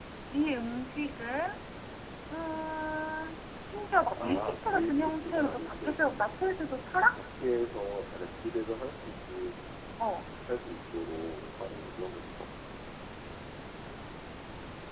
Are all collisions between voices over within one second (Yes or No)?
No